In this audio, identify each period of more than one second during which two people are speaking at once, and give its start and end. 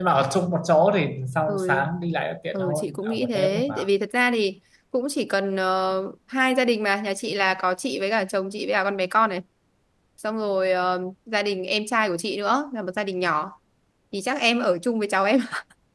2.5-3.9

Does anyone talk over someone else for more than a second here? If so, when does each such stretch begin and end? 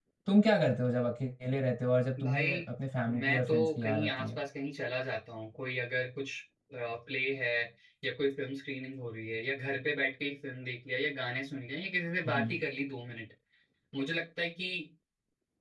3.1-4.4

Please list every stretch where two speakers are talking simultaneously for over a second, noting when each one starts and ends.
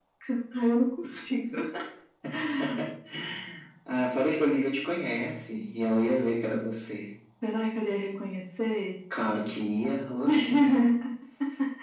none

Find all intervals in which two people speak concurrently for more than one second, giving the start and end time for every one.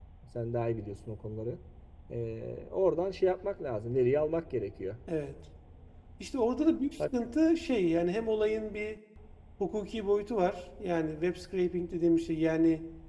none

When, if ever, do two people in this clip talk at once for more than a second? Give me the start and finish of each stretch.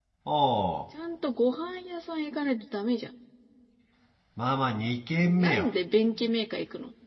none

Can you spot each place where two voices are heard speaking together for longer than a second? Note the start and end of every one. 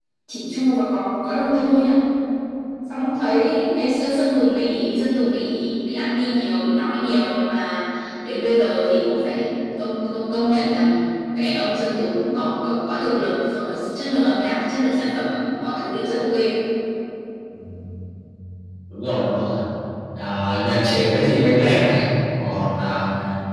none

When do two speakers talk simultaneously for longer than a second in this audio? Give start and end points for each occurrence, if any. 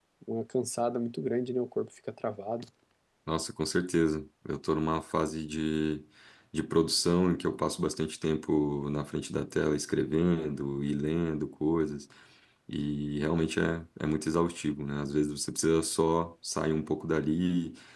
none

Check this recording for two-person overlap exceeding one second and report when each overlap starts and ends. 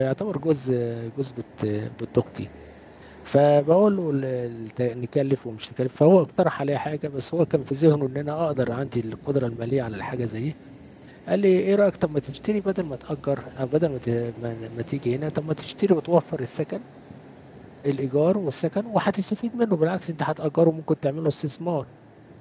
none

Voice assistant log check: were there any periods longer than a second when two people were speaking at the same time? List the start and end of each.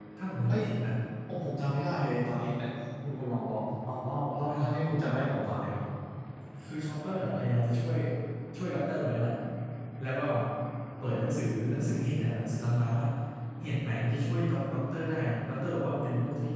none

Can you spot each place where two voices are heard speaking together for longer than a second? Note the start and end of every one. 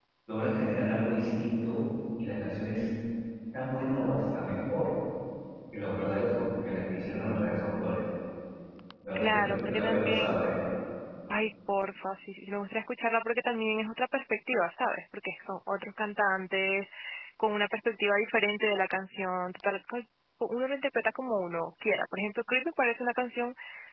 9.2-10.6

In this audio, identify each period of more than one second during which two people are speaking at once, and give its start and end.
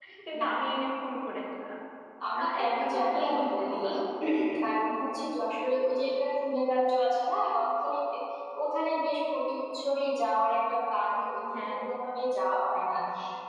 2.4-3.7

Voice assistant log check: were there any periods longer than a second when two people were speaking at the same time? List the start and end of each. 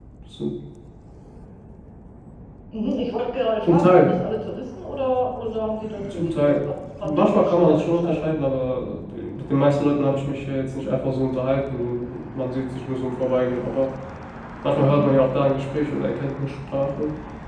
7.0-8.4

